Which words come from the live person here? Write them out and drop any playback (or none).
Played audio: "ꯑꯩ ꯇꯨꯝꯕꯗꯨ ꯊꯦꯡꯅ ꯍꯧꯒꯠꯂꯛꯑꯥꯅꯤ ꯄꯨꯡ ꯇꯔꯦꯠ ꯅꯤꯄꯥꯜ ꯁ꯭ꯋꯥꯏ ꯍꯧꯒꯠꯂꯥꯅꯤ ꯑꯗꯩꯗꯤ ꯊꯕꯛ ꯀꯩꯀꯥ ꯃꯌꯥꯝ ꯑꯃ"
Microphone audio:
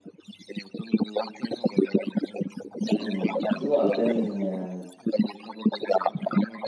ꯎꯝ ꯑꯗꯨ ꯉꯥꯛꯇꯅꯤꯅꯦ ꯃꯌꯥꯝ